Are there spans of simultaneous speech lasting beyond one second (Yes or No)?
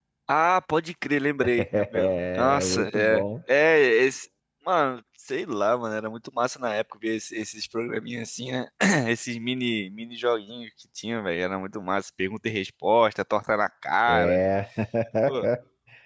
Yes